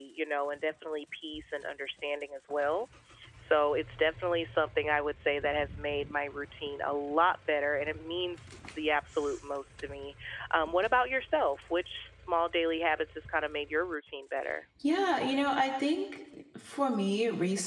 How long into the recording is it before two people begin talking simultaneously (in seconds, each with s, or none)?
none